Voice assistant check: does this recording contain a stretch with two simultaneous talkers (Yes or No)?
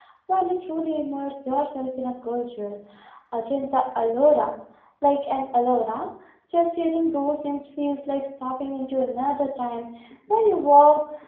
No